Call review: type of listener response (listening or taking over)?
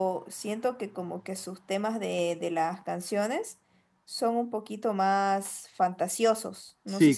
taking over